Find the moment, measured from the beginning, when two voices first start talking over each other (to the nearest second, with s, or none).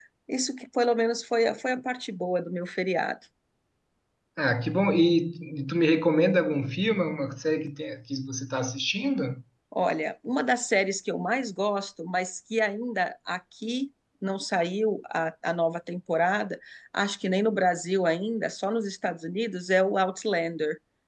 none